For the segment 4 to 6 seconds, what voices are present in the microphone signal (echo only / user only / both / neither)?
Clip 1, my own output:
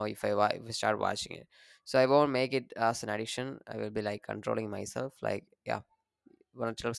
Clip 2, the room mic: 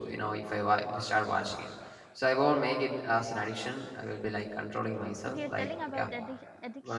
both